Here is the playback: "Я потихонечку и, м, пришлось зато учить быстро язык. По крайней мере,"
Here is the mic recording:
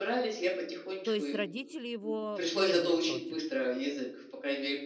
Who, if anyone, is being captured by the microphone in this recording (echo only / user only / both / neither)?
both